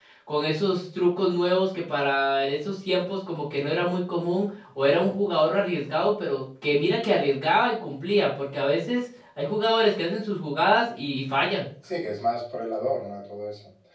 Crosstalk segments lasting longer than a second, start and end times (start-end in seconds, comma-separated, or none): none